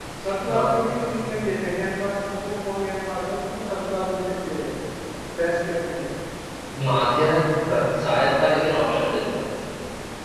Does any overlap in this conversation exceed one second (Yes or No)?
No